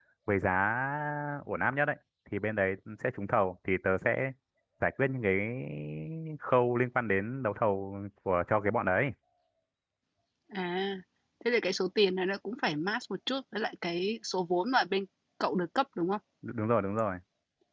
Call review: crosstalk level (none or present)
none